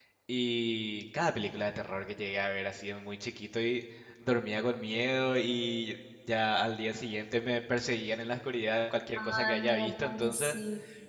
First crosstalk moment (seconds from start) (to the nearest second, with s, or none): 9 s